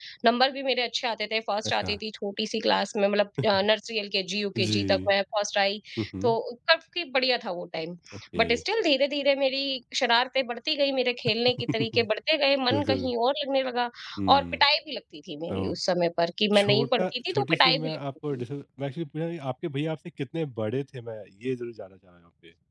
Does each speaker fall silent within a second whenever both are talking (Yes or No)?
No